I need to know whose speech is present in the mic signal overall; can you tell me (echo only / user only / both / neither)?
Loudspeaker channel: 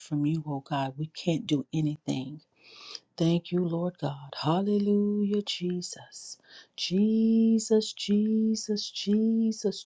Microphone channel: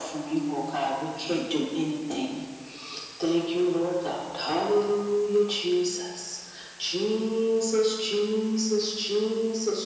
echo only